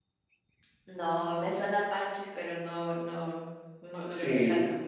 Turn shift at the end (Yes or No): Yes